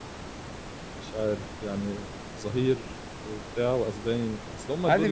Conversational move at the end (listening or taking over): taking over